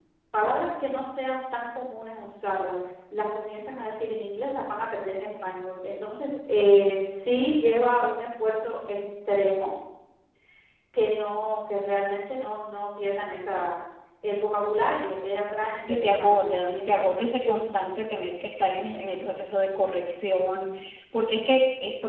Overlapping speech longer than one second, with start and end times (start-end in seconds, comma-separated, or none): 15.9-17.5